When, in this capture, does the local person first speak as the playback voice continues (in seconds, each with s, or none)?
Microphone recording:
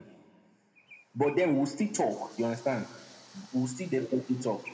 none